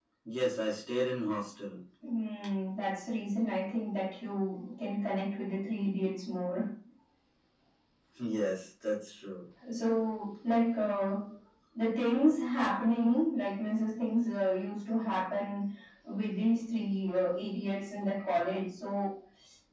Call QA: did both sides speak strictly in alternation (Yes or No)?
Yes